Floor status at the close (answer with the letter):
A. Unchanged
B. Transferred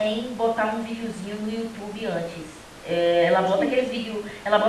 A